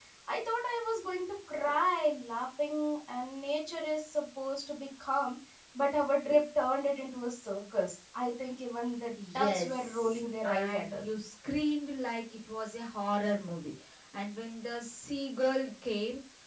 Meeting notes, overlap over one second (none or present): present